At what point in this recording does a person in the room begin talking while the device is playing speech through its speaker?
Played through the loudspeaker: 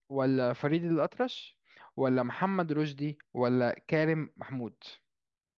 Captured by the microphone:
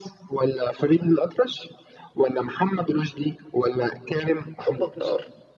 4.6 s

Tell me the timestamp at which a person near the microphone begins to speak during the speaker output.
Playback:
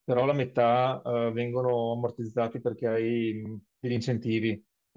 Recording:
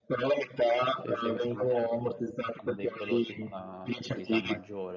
0.9 s

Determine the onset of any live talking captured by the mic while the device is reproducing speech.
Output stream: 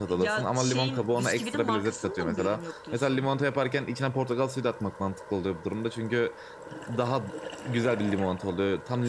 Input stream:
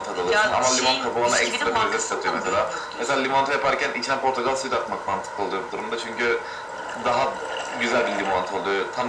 none

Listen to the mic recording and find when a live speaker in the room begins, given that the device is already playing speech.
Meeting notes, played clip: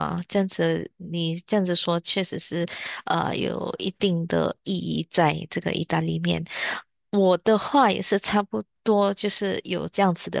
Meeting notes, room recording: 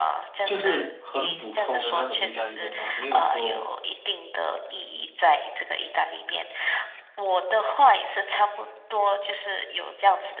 0.4 s

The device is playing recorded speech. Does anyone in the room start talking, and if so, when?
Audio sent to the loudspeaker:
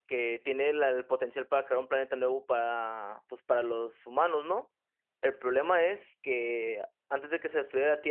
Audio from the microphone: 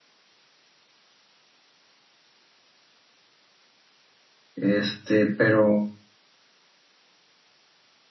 4.5 s

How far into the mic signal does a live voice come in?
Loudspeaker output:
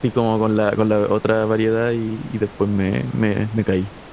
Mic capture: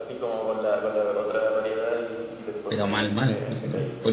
2.7 s

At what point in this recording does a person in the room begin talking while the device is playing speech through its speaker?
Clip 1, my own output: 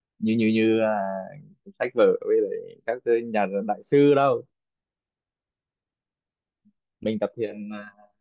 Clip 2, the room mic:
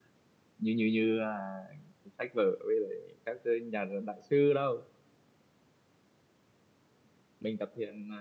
none

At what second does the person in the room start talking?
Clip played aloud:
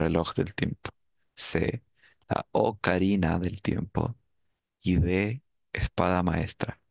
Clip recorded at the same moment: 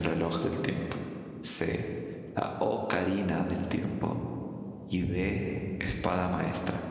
none

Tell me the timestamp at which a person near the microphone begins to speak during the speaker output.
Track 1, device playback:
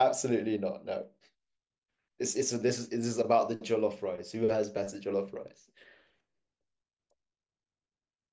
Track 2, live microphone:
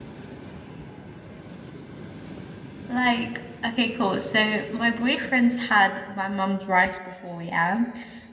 2.9 s

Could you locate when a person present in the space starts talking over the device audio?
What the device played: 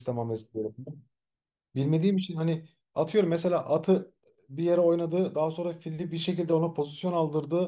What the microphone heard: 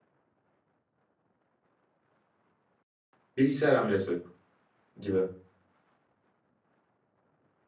3.4 s

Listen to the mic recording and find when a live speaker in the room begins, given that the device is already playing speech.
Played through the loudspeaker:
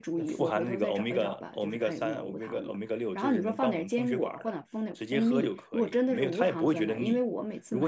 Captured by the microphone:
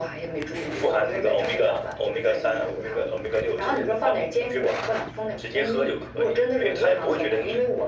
none

